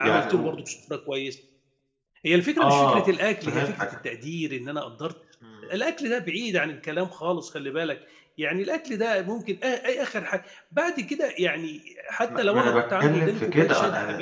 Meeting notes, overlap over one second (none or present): present